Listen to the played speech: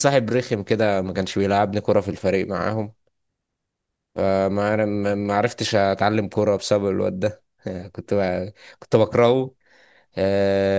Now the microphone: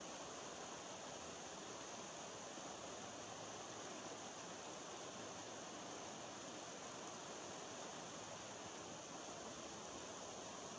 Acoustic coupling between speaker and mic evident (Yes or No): No